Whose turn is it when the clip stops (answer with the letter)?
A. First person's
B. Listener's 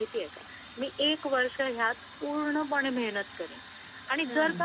A